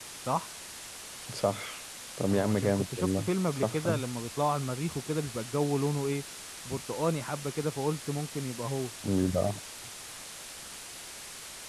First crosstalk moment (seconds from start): 2.3 s

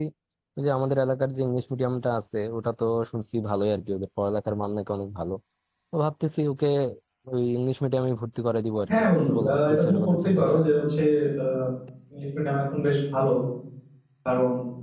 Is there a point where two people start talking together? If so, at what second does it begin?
8.9 s

